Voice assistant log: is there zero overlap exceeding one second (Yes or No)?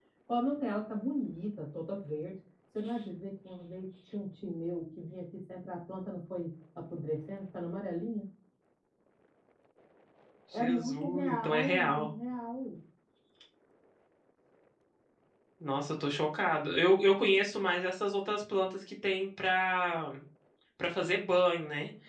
No